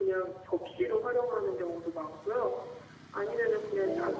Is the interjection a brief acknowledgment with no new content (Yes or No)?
Yes